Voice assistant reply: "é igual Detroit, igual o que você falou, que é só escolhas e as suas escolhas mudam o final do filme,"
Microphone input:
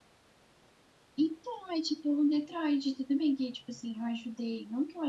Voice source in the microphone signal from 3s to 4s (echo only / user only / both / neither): user only